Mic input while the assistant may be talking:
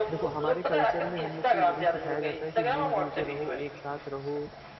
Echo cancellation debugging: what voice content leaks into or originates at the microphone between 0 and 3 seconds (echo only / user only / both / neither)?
both